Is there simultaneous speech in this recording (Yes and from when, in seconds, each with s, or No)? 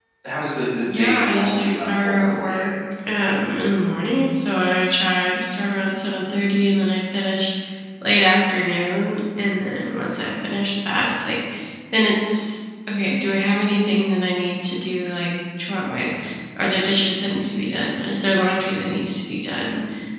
Yes, from 0.9 s